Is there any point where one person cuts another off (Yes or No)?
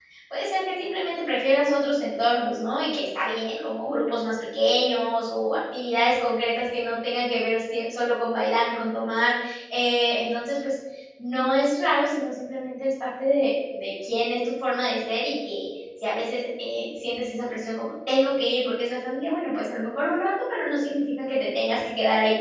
No